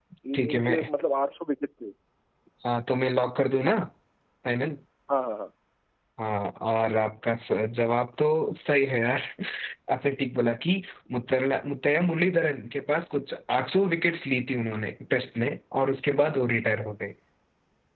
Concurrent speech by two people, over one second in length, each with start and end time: none

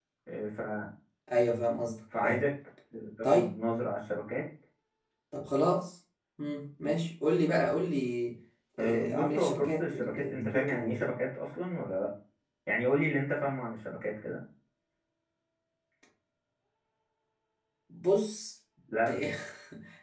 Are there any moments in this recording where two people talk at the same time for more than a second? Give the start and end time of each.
8.8-11.1

